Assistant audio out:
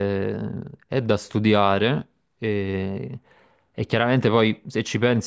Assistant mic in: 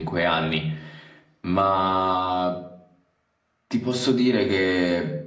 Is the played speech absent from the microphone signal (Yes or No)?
Yes